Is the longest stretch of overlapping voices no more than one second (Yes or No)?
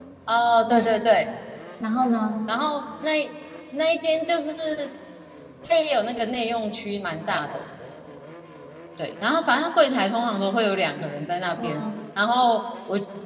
Yes